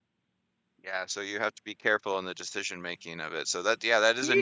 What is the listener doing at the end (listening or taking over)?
listening